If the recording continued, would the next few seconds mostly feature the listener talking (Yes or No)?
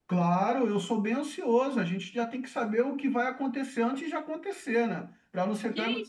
Yes